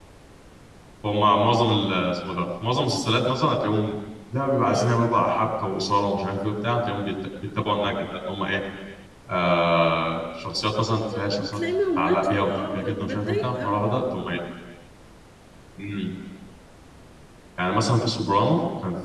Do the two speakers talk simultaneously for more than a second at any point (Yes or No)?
Yes